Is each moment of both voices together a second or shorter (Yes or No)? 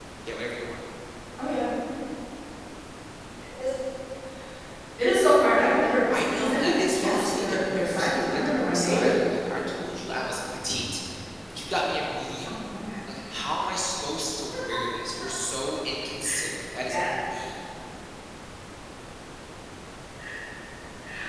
No